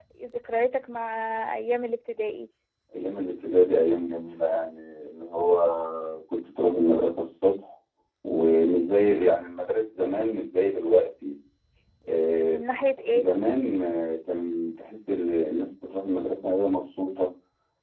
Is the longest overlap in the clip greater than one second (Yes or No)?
No